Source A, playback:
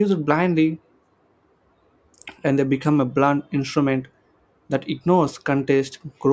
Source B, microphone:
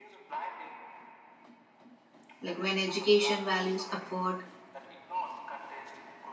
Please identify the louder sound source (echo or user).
user